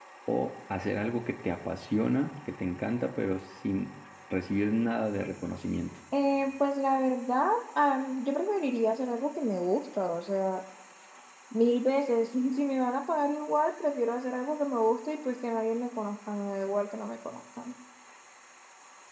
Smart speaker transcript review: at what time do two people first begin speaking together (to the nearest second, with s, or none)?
none